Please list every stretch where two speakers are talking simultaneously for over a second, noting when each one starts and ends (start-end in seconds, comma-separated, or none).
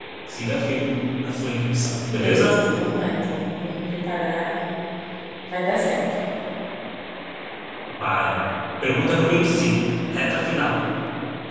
none